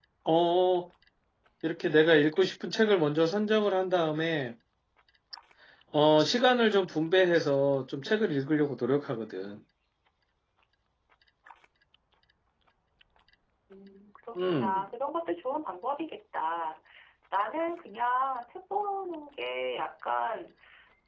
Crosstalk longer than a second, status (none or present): none